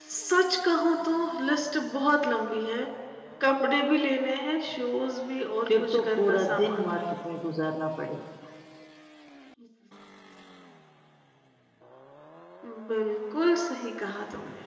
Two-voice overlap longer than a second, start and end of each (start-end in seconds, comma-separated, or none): 5.8-7.0